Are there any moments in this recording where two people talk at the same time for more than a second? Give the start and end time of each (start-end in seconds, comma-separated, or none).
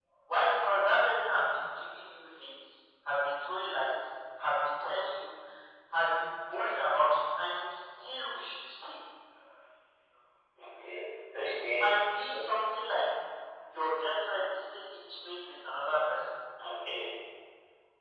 none